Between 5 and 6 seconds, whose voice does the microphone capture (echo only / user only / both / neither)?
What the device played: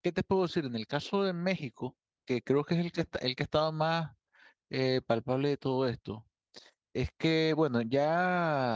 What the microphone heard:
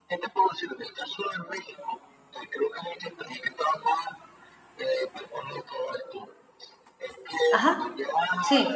echo only